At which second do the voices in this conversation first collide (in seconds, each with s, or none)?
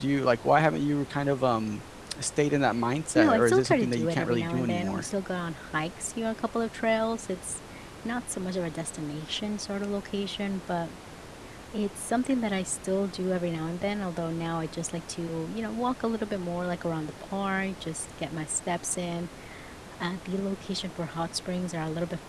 3.2 s